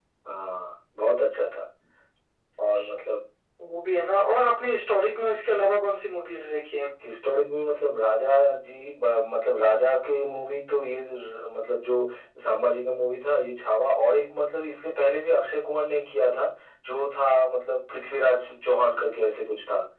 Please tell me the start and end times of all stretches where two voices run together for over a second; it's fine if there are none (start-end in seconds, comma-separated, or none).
none